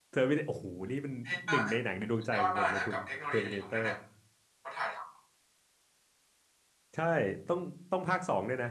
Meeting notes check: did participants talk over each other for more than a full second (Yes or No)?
Yes